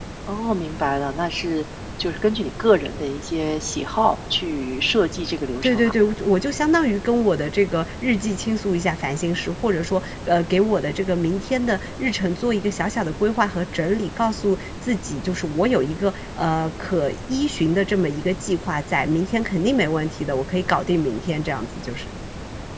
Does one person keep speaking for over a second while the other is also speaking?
No

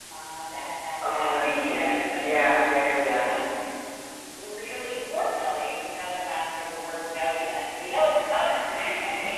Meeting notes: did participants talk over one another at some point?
Yes, from 1.0 s

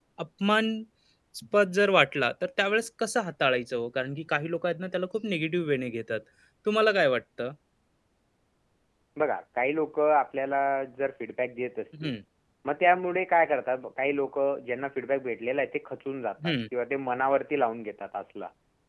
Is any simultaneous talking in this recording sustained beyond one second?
No

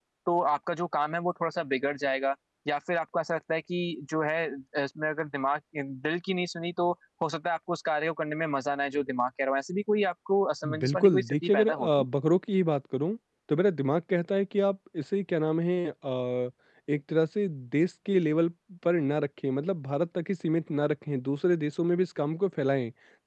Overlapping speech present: Yes, from 10.6 s

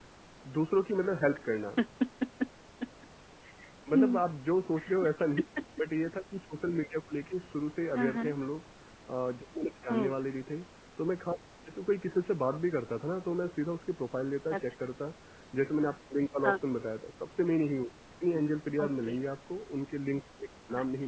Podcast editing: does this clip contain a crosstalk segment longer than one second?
No

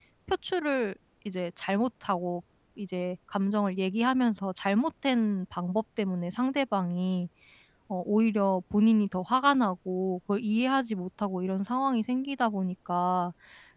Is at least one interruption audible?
No

